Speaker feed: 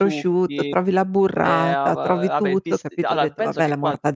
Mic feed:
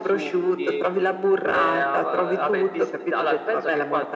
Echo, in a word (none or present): present